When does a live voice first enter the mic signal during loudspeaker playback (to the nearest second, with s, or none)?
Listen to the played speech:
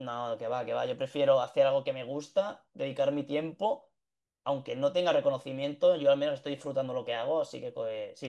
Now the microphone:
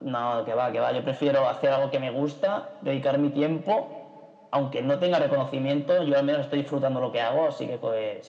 none